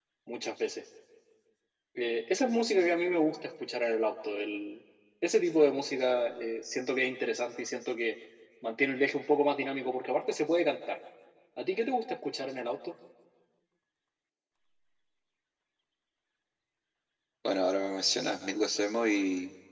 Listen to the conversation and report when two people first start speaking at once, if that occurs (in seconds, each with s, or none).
none